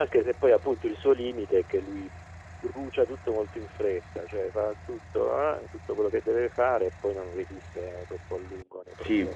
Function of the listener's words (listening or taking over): taking over